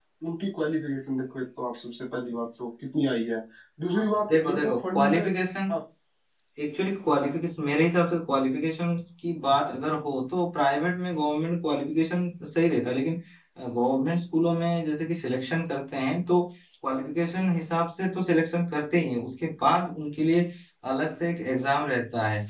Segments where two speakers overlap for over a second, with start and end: 3.9-5.2

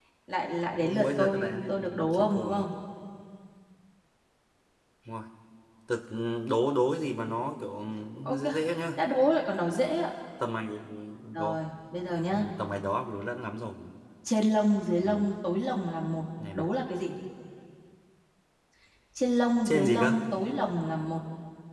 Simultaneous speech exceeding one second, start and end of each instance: 0.8-2.6

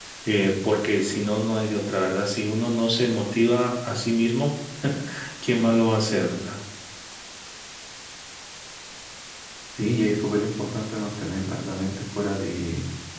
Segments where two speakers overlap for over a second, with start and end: none

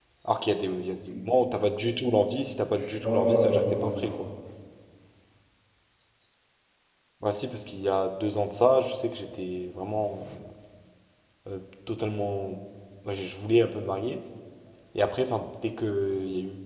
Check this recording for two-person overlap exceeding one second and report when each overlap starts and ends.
2.8-4.2

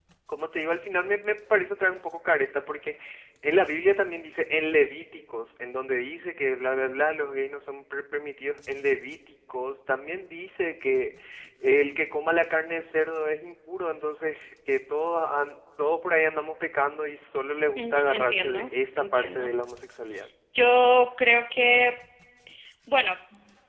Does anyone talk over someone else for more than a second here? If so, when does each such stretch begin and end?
17.8-19.5

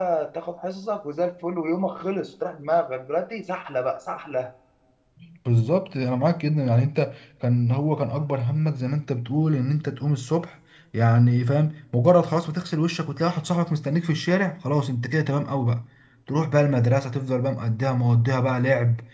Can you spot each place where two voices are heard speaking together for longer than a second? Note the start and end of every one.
none

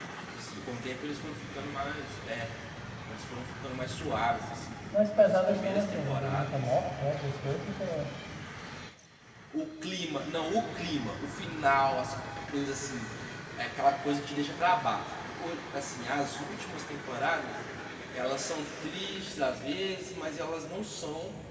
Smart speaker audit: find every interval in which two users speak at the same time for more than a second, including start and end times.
5.2-6.7

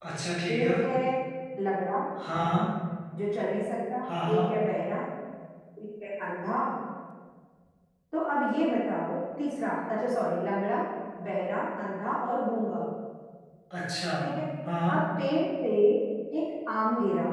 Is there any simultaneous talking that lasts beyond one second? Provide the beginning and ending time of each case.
none

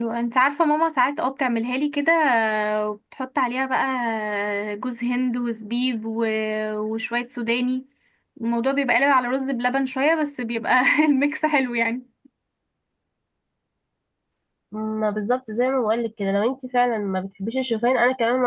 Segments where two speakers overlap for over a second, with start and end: none

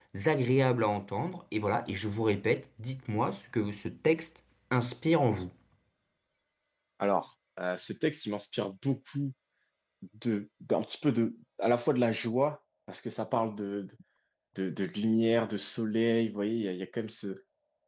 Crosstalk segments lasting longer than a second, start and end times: none

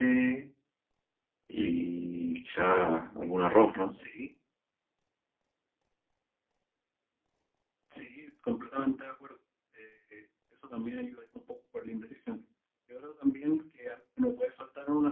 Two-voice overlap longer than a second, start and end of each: none

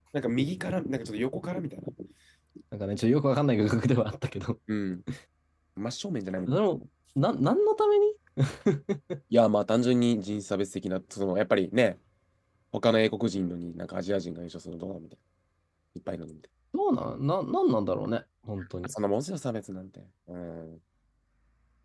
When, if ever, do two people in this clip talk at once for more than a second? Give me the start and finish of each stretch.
none

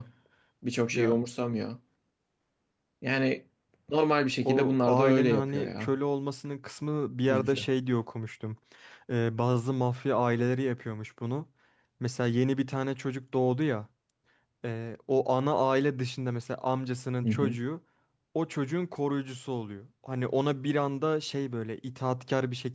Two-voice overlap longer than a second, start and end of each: 4.4-5.9

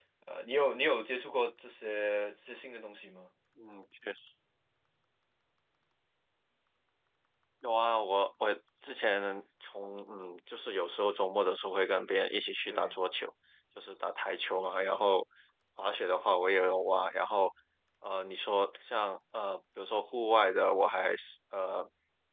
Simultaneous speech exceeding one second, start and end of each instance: none

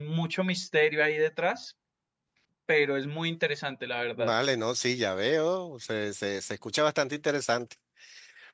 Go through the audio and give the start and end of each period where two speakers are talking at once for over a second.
none

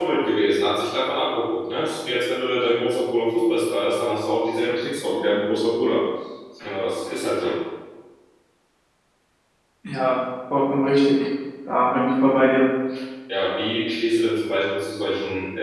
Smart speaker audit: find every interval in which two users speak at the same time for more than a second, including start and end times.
none

